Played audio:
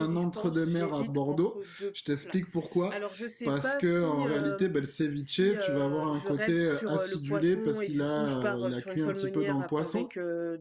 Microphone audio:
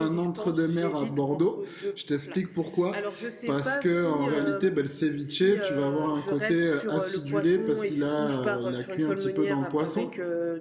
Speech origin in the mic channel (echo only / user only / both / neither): echo only